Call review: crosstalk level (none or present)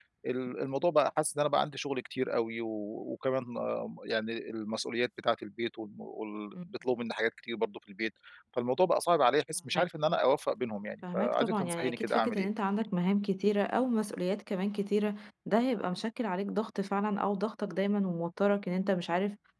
present